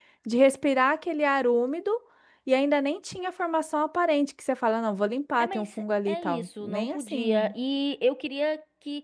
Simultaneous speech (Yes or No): Yes